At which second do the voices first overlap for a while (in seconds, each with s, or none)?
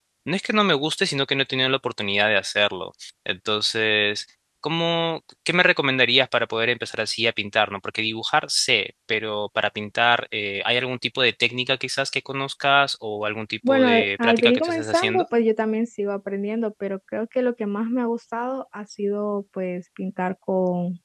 13.6 s